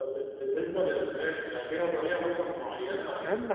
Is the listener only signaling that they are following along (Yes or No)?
No